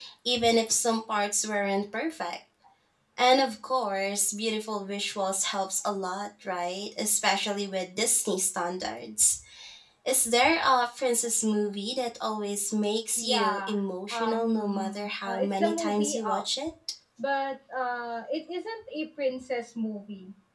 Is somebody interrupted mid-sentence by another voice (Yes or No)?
Yes